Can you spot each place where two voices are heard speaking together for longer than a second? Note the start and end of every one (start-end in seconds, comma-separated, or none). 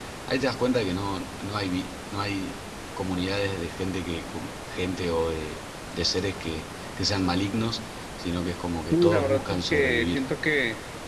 8.9-10.2